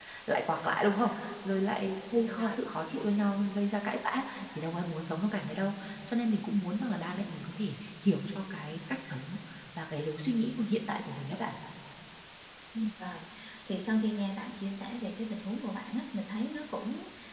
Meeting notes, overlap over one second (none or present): none